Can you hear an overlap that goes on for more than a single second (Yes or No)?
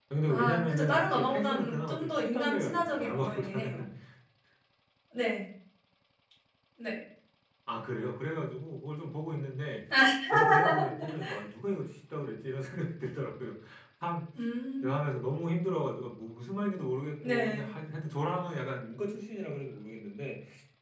Yes